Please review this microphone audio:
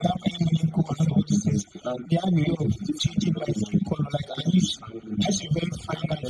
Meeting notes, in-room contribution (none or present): none